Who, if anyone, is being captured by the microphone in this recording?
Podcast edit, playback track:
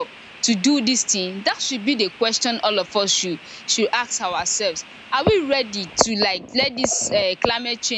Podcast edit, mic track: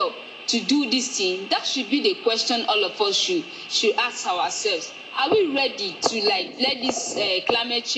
echo only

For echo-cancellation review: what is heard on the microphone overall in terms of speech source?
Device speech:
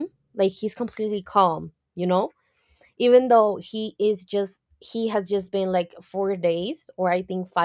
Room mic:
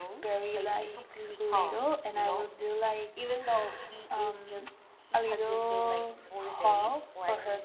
both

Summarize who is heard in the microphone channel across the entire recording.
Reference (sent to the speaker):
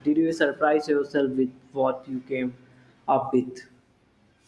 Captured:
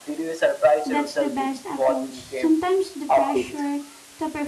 both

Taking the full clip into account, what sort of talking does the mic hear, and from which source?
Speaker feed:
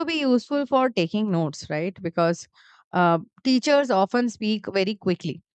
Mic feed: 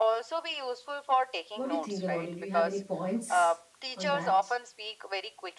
both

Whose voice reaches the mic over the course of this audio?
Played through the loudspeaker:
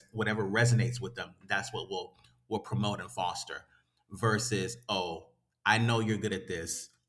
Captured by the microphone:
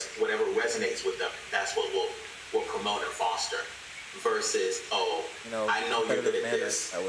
both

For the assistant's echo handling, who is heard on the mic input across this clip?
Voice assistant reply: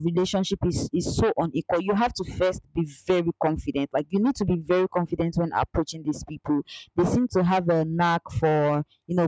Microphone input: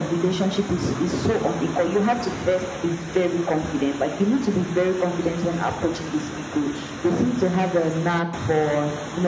echo only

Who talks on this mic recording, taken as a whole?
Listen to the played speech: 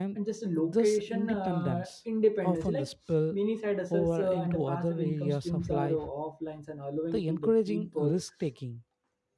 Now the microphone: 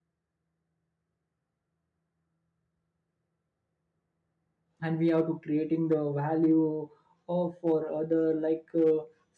user only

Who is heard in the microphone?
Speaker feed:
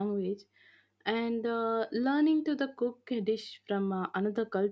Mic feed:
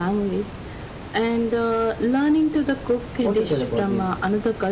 both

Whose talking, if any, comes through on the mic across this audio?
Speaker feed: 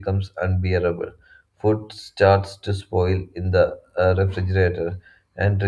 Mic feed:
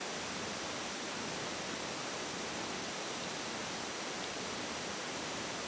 neither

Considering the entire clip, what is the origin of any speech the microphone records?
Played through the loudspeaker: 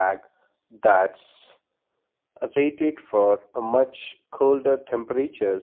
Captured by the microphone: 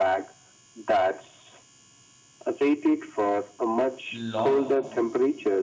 both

